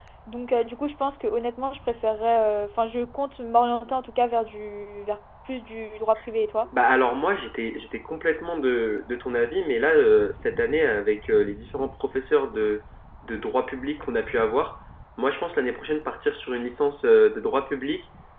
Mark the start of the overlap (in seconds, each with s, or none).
none